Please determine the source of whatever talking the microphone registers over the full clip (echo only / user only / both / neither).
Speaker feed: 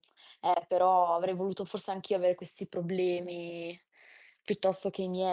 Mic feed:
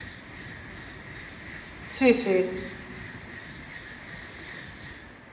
user only